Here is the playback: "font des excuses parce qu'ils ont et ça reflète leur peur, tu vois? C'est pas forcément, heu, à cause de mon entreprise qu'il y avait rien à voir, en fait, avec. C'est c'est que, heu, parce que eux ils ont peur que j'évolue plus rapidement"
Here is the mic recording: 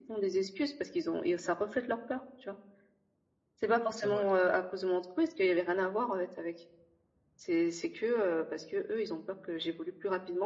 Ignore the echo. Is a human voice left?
Yes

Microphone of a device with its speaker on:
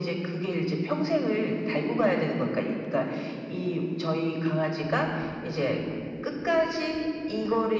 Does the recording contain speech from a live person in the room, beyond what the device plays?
No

